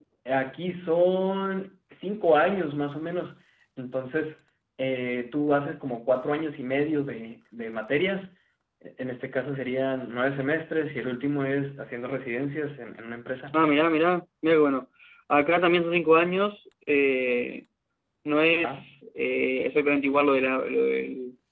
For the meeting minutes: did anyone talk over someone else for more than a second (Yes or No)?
No